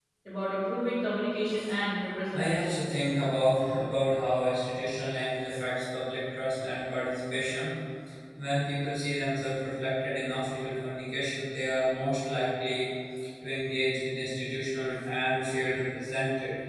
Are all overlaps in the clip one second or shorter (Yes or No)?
Yes